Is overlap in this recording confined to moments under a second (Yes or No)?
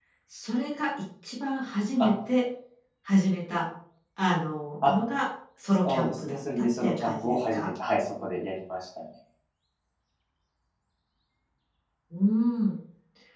No